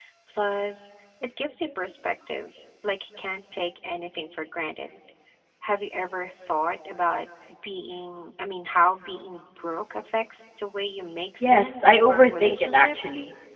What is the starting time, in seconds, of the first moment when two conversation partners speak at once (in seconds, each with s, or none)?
11.4 s